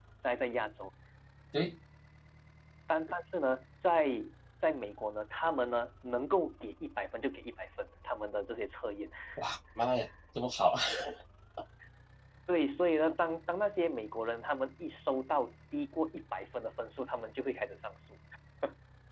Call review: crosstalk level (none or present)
none